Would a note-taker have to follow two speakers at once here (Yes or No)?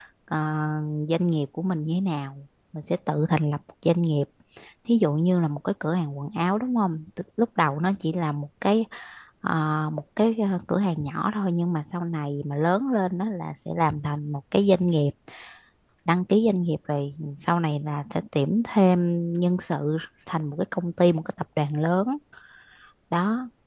No